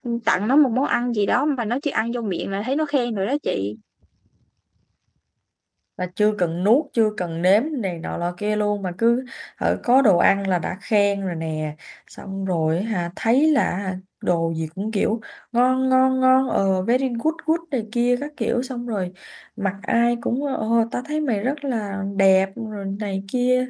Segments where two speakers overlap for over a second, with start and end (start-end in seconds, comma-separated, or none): none